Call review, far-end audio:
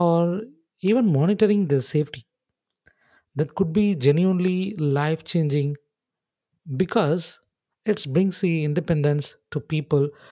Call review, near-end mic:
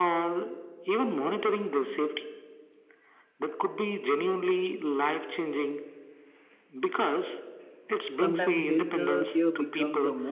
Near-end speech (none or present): present